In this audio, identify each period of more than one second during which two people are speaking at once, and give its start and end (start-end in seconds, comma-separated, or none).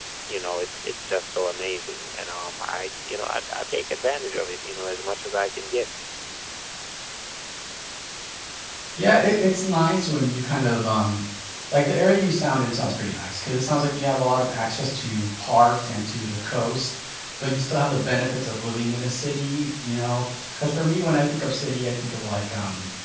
none